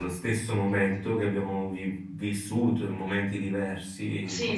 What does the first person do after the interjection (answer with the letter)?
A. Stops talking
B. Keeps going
A